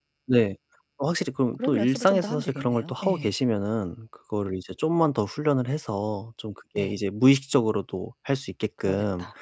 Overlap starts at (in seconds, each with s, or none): 1.5 s